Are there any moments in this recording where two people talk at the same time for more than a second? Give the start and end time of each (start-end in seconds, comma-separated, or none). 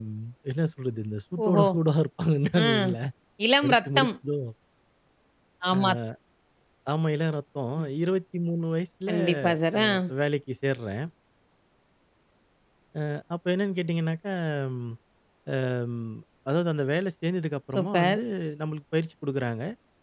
none